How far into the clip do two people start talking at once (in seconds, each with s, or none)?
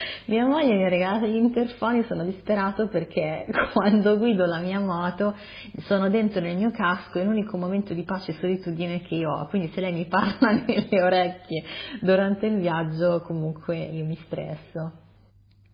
none